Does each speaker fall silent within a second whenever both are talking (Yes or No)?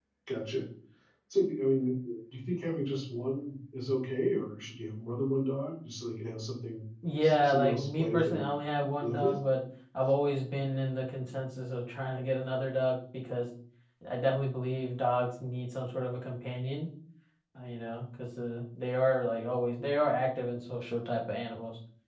No